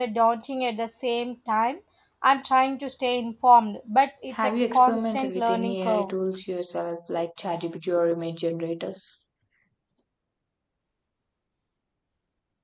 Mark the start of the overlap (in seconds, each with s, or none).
4.3 s